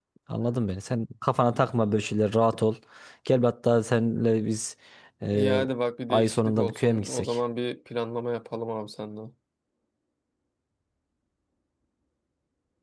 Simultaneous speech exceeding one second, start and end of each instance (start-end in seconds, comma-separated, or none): 6.1-7.4